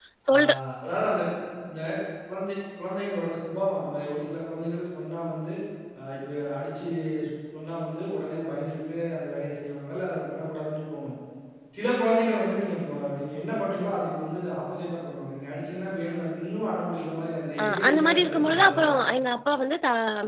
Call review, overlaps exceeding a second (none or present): present